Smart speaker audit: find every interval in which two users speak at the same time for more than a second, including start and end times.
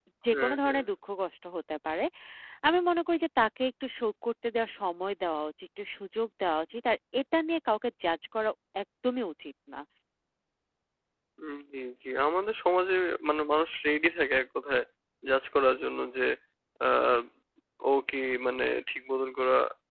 none

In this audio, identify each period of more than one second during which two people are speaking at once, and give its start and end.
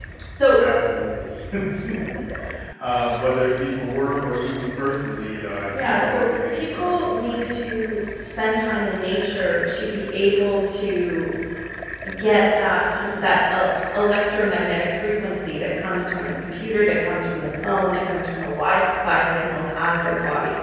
5.7-7.6

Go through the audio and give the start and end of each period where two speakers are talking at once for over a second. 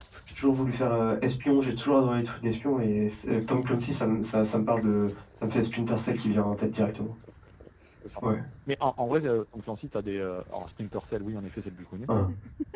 none

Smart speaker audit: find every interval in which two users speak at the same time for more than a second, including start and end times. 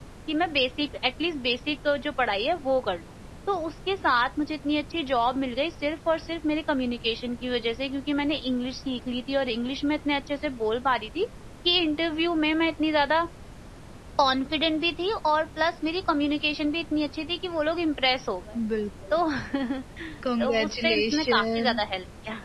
20.4-21.8

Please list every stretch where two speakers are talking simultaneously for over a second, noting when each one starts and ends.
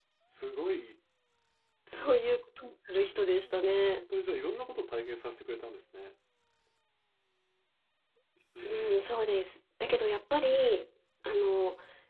none

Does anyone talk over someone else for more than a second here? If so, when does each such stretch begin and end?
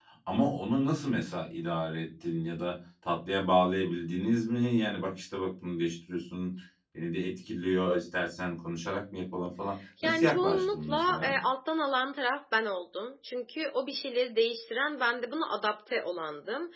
10.0-11.3

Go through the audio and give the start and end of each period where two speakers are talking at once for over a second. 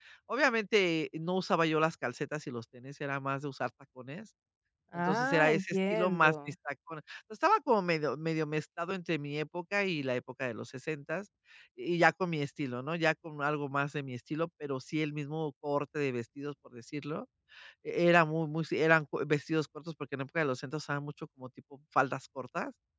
5.0-6.3

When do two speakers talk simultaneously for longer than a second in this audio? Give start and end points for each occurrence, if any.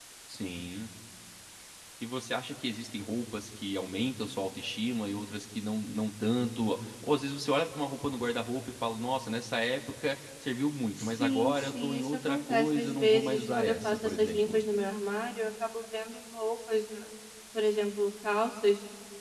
11.0-14.6

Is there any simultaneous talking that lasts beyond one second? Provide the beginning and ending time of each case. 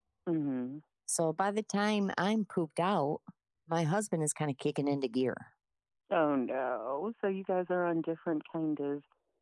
none

